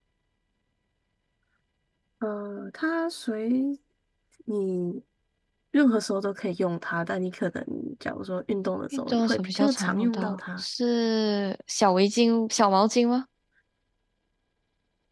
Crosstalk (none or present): present